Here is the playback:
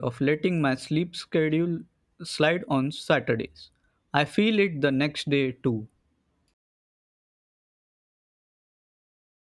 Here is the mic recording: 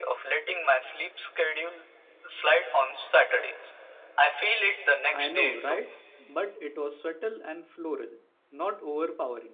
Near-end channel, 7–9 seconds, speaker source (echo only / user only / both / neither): user only